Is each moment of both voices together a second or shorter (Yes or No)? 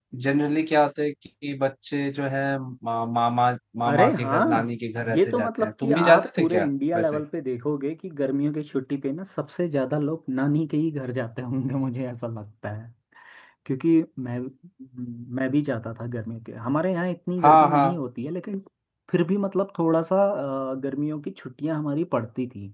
No